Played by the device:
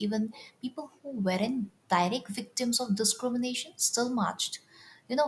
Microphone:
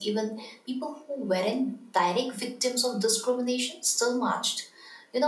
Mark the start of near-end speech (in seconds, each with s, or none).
none